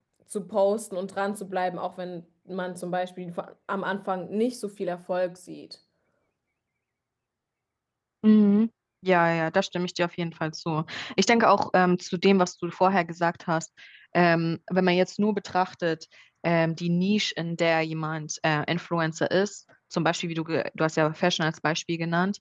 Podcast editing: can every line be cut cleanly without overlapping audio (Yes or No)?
Yes